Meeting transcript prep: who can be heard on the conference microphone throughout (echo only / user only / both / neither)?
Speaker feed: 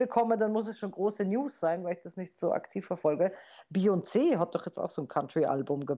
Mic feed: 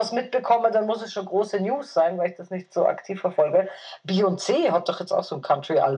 echo only